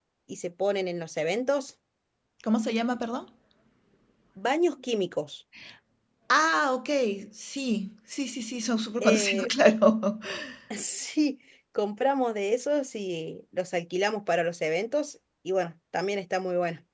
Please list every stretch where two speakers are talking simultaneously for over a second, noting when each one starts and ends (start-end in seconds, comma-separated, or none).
none